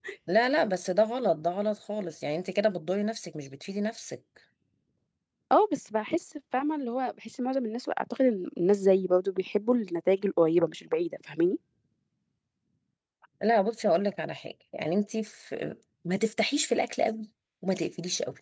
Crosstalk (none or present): none